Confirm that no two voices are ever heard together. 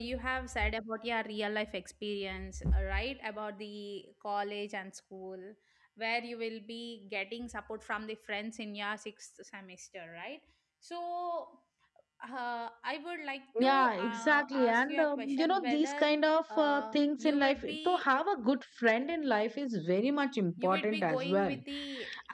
No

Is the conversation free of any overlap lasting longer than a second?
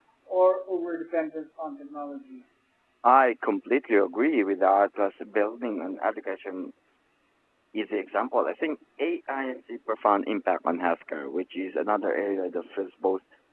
Yes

